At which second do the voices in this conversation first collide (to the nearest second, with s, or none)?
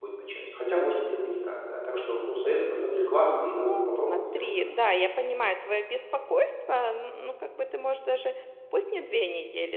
3 s